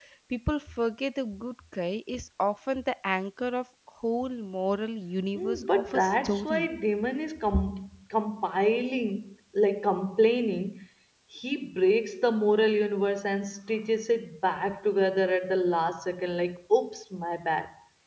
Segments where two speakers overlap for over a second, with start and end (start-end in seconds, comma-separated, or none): 5.3-6.7